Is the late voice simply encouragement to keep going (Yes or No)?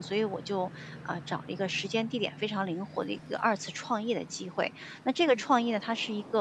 Yes